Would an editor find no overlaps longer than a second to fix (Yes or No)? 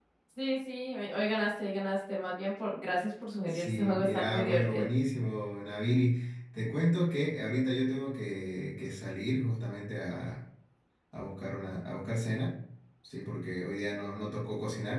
No